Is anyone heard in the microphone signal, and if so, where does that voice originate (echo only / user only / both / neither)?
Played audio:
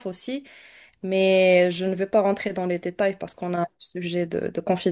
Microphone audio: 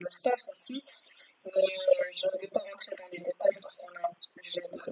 echo only